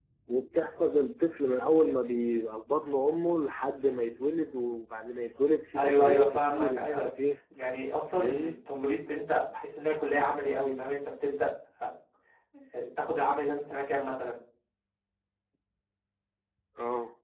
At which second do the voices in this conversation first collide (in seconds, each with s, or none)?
5.7 s